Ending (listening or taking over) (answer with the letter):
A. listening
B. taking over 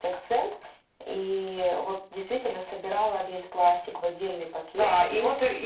B